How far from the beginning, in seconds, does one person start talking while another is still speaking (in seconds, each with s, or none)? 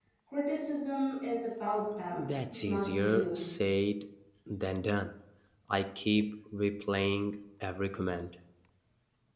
2.2 s